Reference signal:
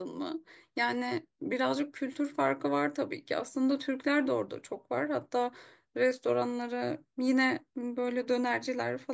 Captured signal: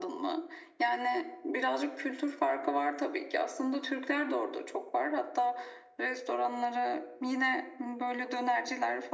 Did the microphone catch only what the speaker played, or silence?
Yes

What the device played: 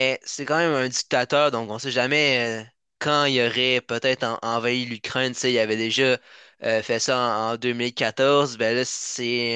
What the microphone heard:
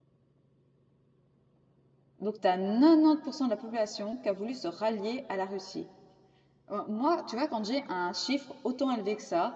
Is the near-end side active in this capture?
Yes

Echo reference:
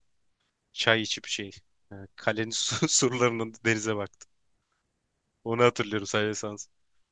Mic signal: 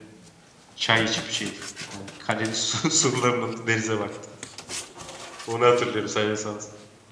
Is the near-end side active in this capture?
No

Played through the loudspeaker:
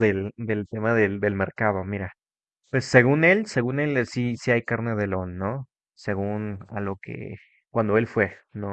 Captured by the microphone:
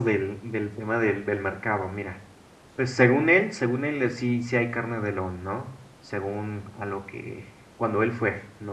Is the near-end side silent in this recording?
Yes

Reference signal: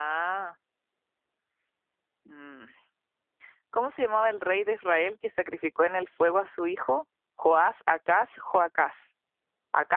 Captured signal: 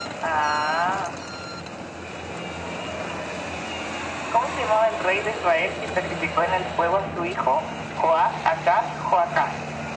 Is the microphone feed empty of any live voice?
Yes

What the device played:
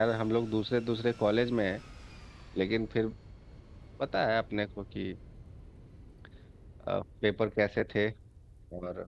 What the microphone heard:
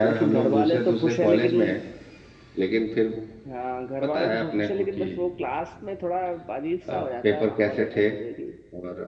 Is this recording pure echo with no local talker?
No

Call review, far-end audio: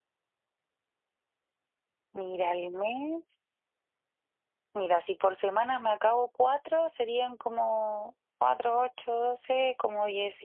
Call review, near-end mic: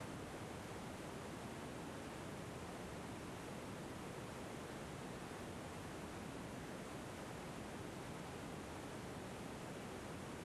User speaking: No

